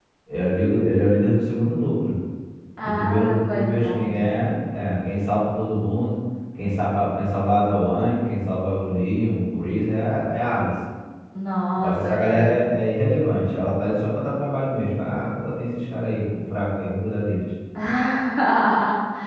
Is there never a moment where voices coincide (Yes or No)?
No